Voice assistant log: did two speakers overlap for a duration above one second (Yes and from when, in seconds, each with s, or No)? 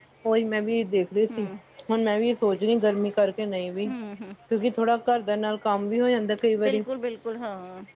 No